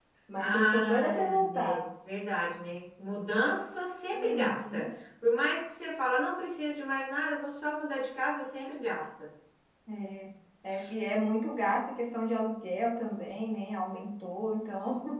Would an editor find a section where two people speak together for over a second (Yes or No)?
Yes